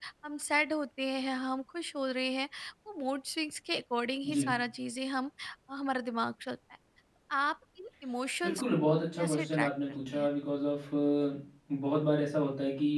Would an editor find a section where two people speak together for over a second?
Yes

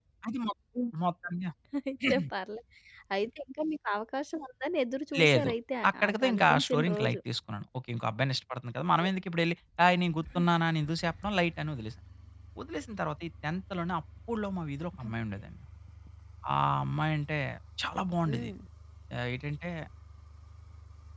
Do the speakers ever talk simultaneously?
Yes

